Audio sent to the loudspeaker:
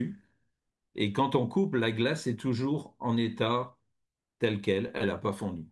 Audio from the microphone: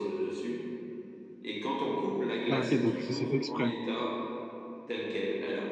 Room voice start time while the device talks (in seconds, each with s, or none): 2.5 s